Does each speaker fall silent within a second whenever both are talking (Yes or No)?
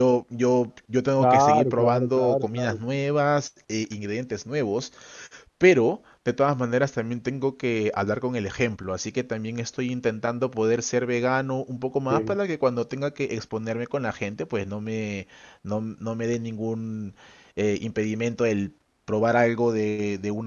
No